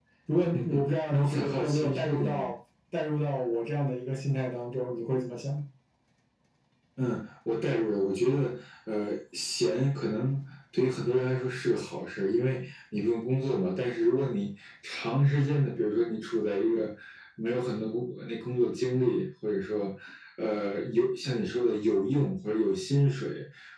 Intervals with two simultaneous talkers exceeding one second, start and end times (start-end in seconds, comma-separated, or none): 0.5-2.5